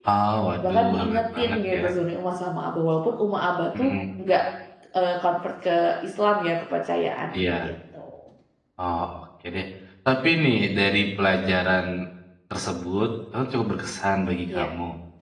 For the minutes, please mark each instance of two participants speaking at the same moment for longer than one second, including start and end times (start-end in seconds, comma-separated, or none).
0.6-1.8